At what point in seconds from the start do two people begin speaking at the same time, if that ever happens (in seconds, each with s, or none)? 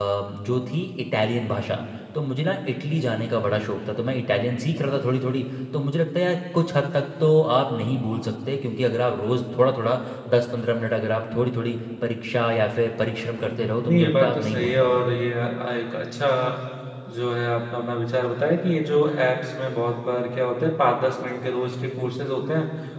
13.4 s